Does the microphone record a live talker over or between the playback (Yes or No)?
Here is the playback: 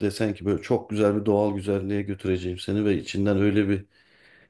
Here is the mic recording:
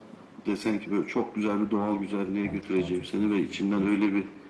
Yes